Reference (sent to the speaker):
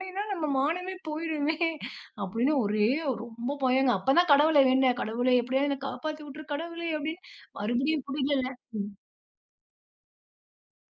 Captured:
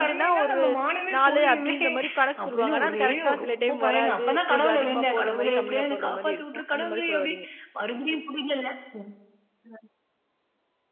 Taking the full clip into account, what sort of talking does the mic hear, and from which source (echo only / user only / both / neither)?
both